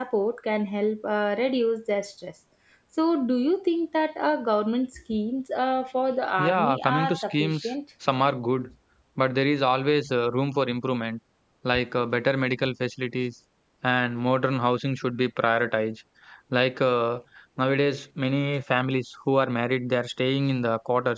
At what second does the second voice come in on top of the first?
6.4 s

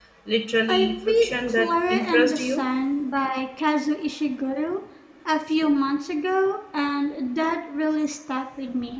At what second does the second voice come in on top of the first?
0.7 s

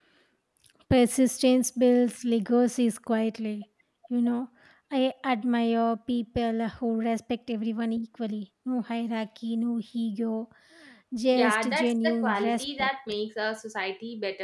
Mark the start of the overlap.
11.3 s

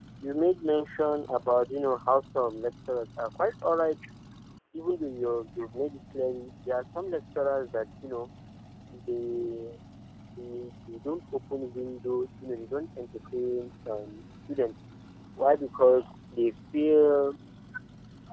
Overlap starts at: none

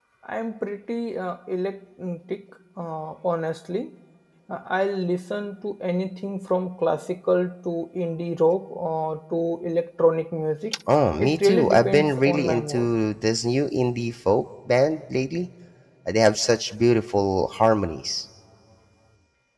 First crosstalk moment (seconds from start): 11.2 s

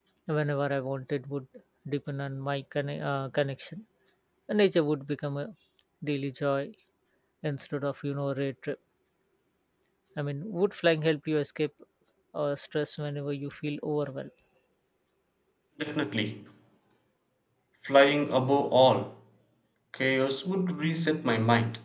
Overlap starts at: none

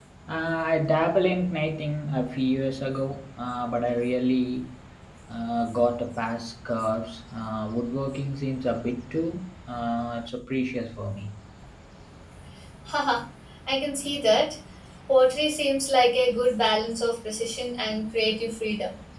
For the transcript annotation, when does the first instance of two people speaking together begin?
none

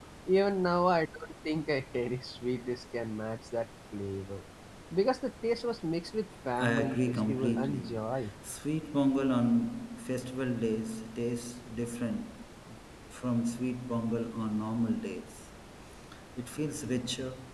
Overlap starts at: 6.6 s

